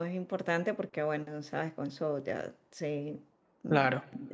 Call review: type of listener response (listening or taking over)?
listening